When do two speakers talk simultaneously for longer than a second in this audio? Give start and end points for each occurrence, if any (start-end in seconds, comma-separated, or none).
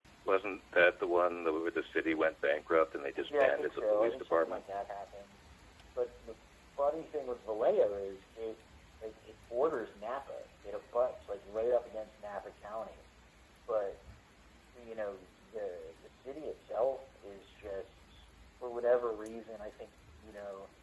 3.3-4.6